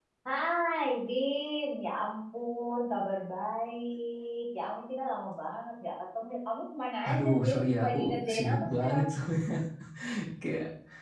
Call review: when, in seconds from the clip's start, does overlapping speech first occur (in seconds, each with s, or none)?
7.0 s